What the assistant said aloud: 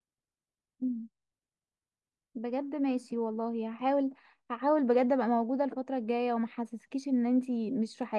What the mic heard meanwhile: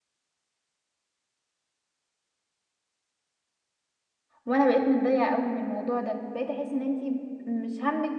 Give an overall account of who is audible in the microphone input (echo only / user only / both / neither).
user only